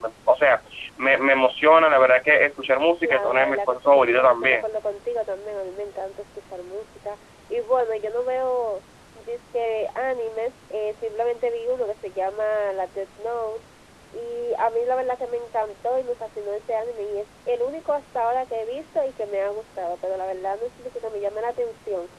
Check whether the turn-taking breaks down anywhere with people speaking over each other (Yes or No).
Yes